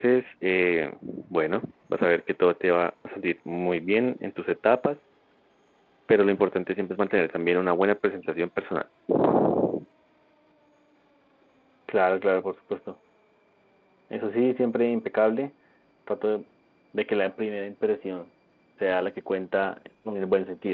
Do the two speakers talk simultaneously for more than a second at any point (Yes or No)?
No